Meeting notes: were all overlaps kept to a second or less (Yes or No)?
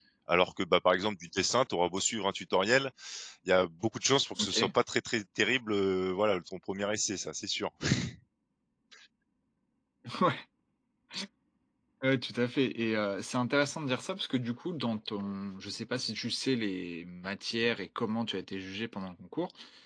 Yes